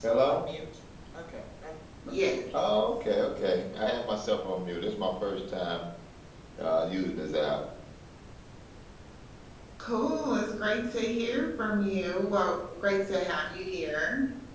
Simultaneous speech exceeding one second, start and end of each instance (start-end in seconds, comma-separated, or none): none